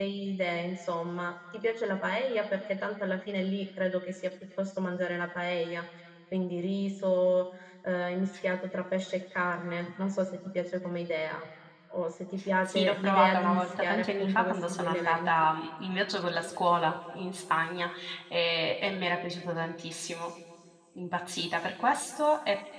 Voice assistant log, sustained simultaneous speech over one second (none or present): present